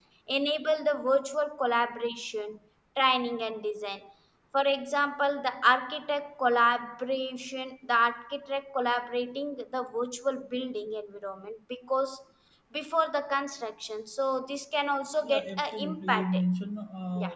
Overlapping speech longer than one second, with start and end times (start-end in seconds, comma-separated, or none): 15.2-16.4